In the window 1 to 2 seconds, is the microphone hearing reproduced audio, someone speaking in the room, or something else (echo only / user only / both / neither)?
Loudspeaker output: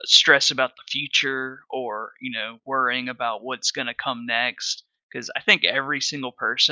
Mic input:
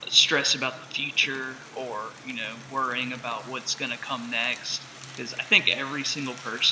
echo only